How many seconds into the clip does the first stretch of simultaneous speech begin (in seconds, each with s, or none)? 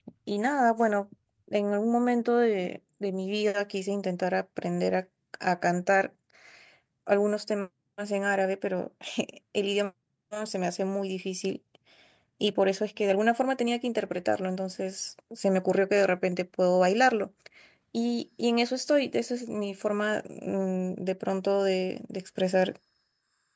none